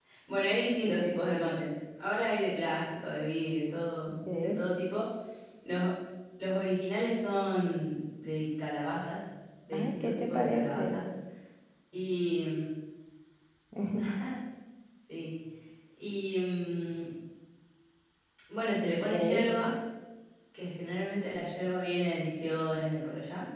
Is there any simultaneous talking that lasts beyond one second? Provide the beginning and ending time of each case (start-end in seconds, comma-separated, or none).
9.7-11.0